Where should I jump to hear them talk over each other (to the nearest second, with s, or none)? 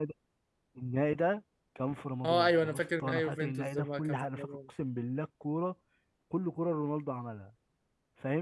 2 s